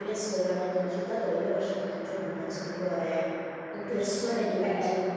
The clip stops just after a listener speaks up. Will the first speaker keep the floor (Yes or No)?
Yes